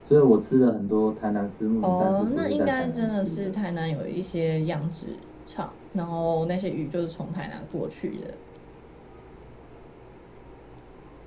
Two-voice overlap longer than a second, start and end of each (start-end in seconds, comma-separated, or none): 1.8-3.5